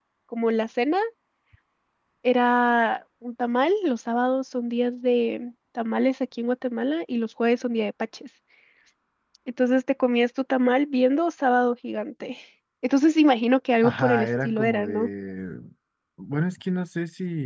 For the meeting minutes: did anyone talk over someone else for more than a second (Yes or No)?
Yes